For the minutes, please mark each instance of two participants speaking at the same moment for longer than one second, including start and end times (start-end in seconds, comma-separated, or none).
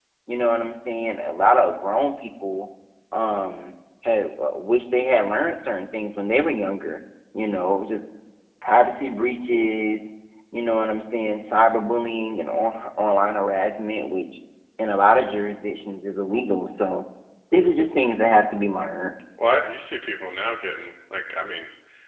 none